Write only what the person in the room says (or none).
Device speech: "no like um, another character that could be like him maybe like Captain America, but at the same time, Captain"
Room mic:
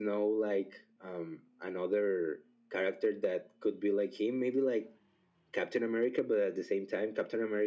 none